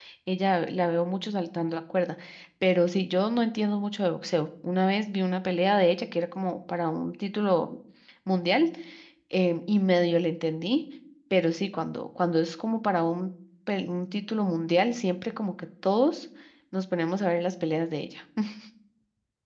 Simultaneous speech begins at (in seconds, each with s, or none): none